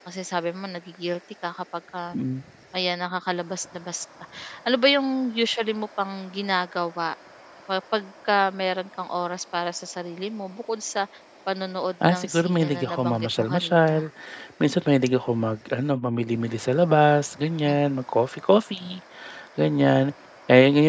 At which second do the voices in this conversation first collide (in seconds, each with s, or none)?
12.1 s